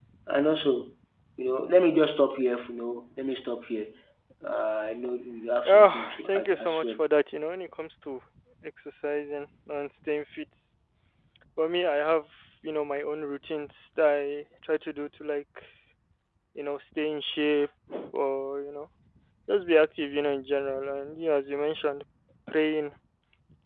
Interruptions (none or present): present